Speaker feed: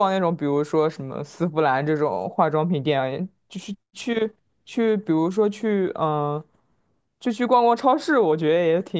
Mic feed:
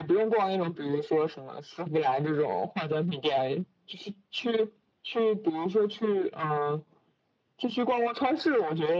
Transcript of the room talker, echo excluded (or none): none